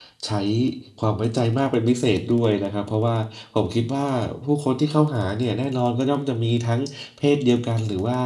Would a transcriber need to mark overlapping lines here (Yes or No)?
No